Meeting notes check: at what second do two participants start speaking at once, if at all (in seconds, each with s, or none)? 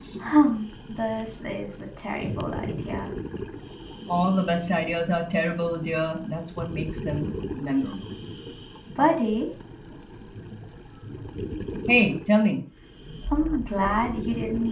none